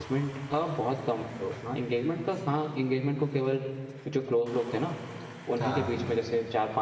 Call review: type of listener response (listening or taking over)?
listening